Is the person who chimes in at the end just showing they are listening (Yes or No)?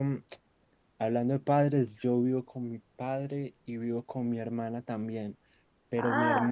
Yes